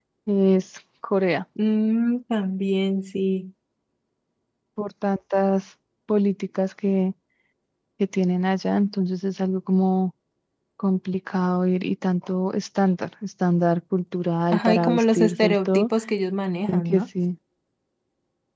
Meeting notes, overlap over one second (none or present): present